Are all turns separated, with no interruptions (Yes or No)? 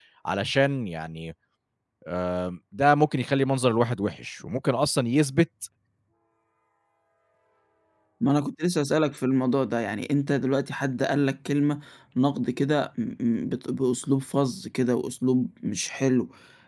Yes